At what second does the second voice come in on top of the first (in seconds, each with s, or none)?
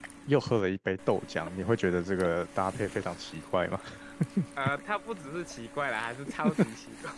none